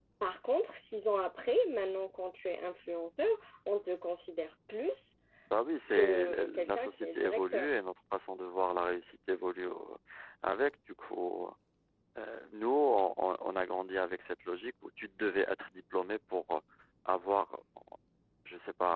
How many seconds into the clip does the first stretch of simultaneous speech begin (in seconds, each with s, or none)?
5.9 s